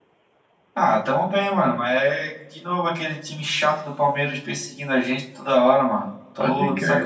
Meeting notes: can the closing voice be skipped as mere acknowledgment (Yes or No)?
Yes